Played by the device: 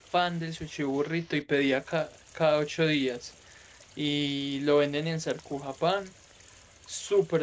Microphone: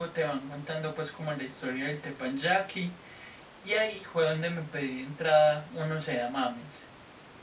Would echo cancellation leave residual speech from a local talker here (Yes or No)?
Yes